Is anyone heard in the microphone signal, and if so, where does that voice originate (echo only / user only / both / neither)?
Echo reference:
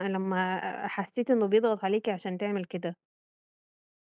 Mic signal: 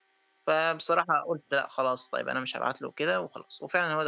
user only